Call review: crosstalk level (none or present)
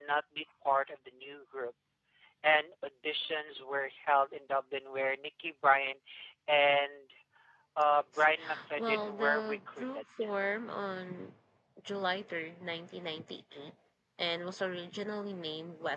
present